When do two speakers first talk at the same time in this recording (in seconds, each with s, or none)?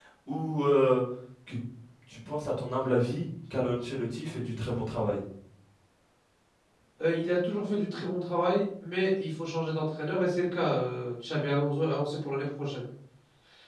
none